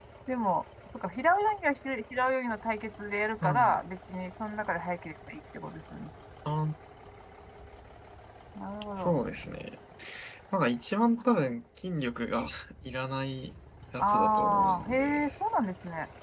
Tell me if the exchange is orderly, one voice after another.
No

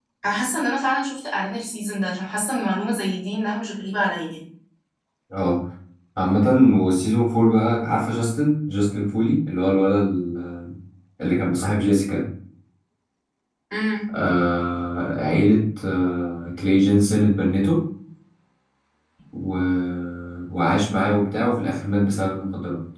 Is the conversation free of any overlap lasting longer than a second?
Yes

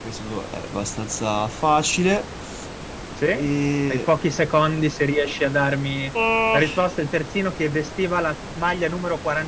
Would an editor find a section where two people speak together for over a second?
No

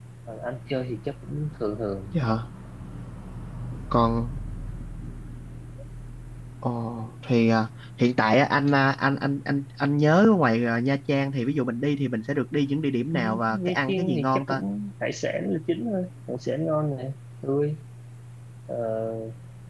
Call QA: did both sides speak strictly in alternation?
No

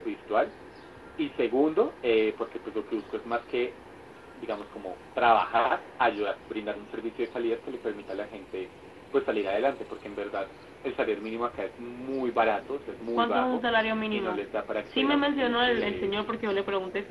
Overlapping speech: Yes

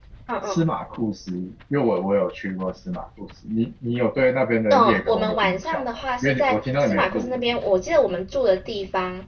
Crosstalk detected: Yes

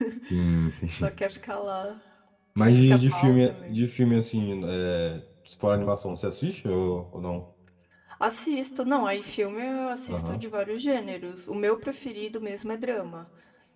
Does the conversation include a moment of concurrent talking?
Yes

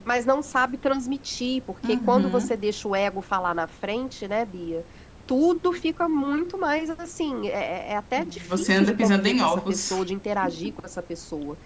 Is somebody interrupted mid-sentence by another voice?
Yes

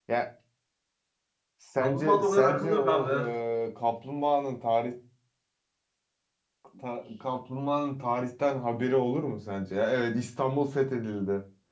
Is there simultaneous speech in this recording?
Yes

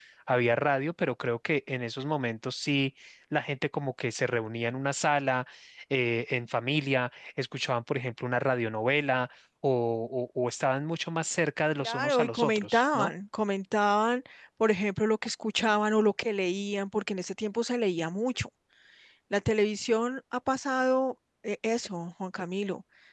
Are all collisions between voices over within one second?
No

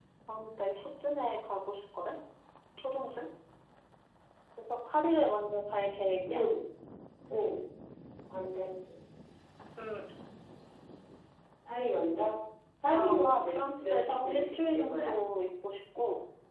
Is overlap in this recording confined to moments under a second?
No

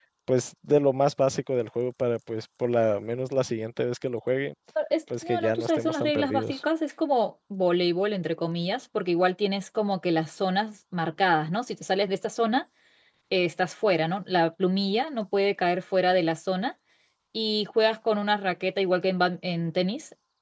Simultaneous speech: Yes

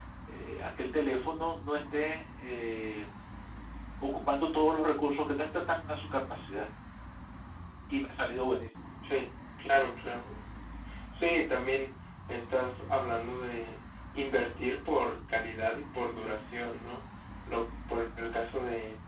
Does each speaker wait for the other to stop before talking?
Yes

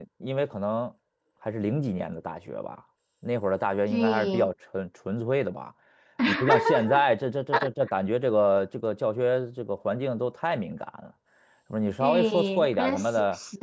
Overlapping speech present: Yes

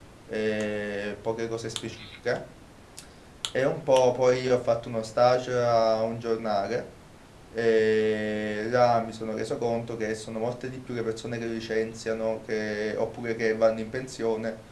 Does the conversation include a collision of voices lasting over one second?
No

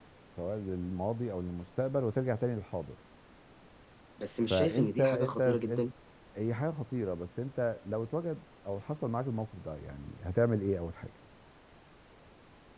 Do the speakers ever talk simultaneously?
Yes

